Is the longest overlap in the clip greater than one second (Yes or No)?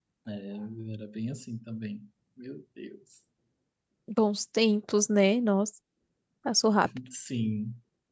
No